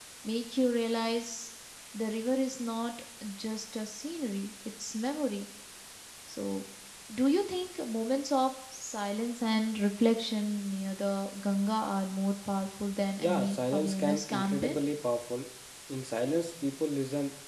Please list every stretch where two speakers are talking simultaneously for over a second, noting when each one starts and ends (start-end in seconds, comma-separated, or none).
13.2-14.8